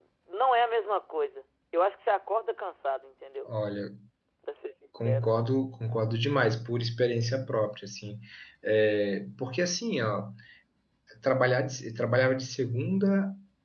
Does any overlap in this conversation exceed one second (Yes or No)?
No